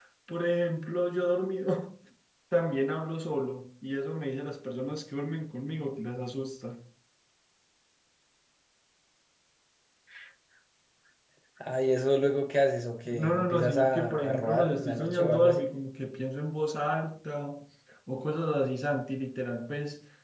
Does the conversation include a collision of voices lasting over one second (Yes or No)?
Yes